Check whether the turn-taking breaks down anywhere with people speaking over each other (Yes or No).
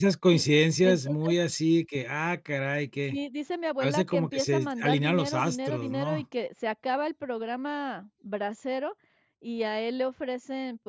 Yes